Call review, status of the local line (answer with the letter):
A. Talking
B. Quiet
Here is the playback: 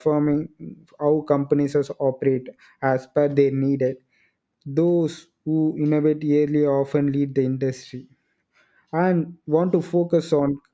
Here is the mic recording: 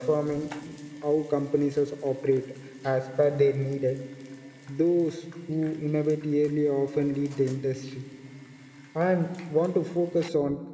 B